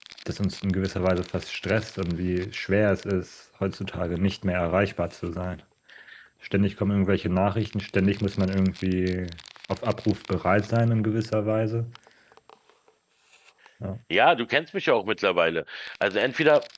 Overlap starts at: none

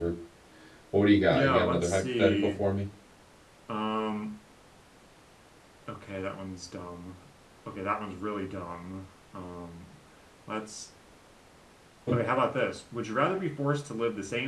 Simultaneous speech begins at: 1.3 s

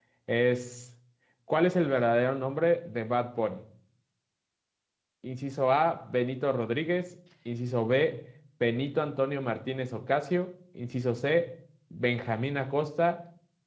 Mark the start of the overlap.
none

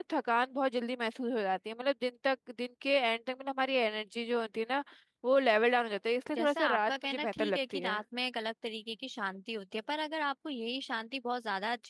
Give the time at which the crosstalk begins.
6.4 s

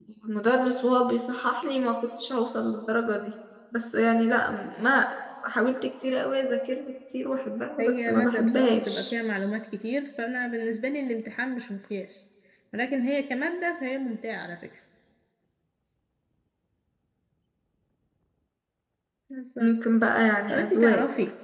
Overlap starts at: 7.8 s

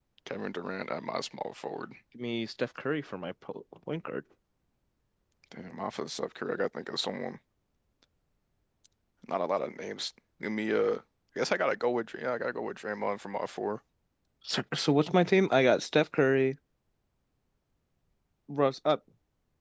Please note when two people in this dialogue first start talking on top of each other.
none

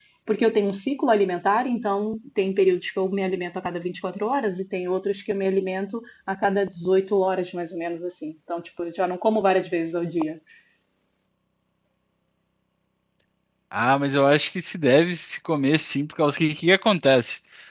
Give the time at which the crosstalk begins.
none

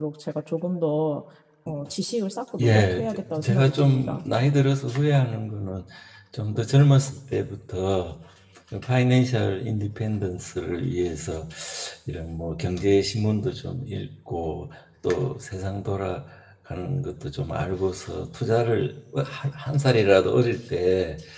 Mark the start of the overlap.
2.6 s

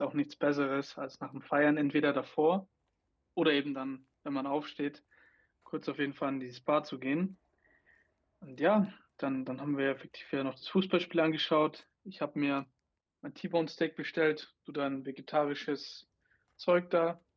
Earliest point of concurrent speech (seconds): none

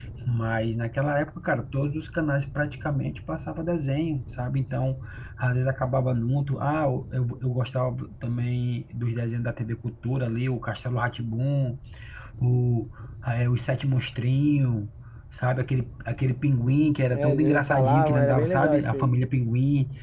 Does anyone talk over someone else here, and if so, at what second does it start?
17.1 s

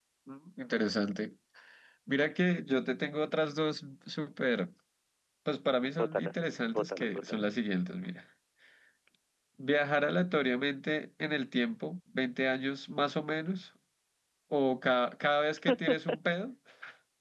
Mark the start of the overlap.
6.0 s

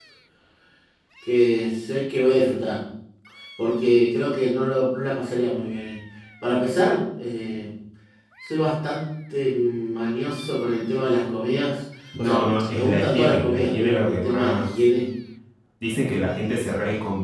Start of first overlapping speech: 12.1 s

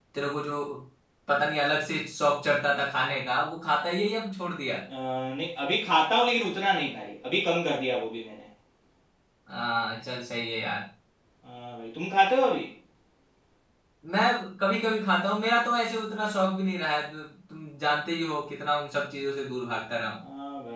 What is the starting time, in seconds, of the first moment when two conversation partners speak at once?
none

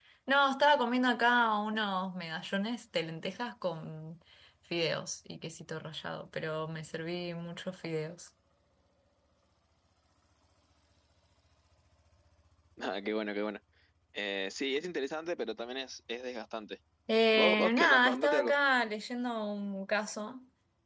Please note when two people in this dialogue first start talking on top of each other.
17.3 s

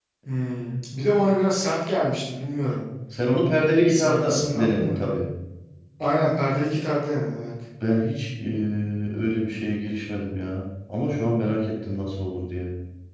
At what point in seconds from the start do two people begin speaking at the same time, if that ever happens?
3.9 s

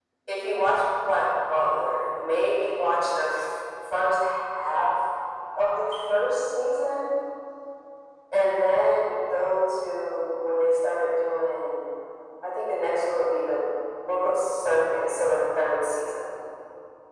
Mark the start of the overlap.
none

